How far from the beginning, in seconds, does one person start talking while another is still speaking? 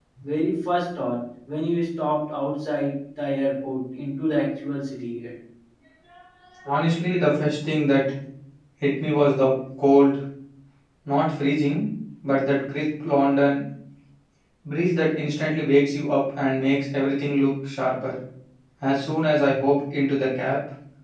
none

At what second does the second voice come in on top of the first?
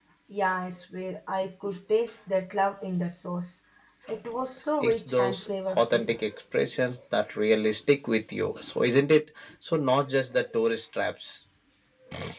4.8 s

